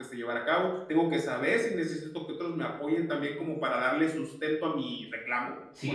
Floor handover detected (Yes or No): Yes